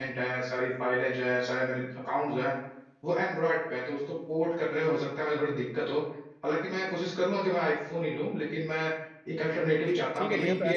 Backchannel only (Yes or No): No